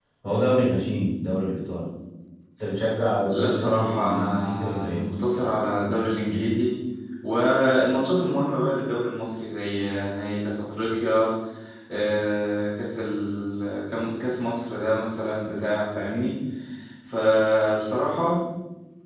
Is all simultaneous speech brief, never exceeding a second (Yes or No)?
No